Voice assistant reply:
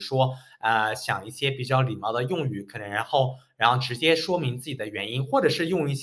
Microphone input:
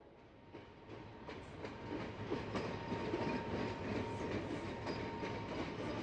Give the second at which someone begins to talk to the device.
none

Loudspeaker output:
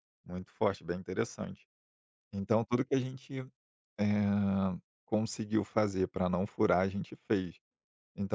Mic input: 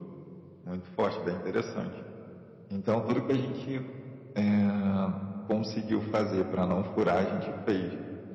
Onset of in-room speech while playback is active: none

